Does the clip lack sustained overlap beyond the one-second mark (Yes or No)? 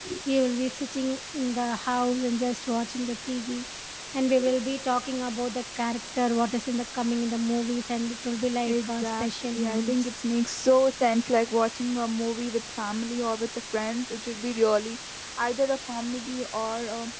No